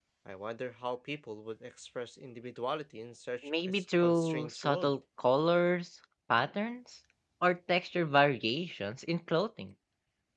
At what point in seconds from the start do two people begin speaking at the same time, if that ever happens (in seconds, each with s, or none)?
3.4 s